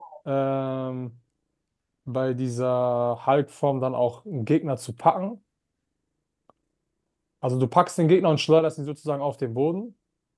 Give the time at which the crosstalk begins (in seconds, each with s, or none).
none